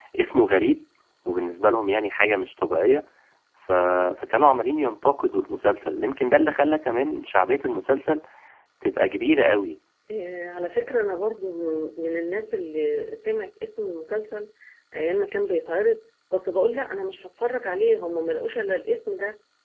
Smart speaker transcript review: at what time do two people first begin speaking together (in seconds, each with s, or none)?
none